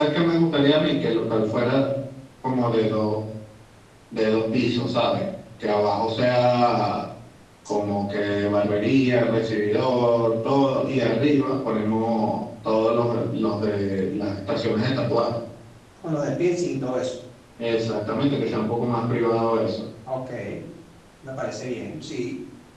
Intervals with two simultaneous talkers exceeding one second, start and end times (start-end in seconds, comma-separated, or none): none